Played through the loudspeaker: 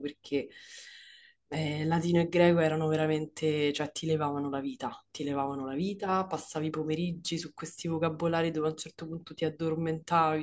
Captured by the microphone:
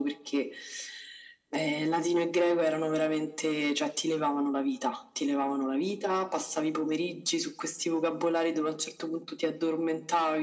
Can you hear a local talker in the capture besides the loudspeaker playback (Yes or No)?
No